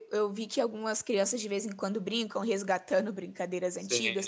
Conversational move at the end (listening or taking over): listening